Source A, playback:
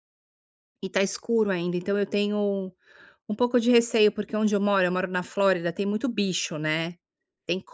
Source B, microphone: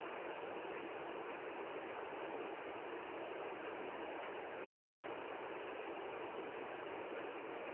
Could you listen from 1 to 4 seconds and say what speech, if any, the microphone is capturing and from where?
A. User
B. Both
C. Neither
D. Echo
C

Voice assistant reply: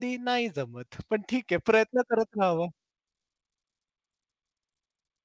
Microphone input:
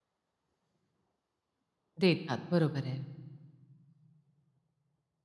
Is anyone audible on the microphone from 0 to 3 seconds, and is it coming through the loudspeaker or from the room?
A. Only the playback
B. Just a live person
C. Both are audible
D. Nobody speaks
B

